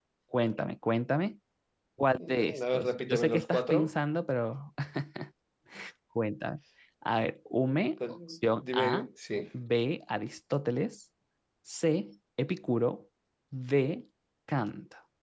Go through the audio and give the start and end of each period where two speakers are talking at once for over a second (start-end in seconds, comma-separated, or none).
2.2-3.9